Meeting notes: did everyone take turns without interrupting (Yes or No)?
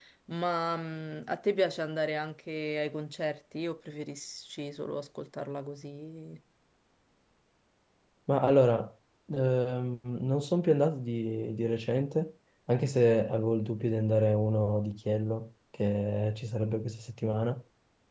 Yes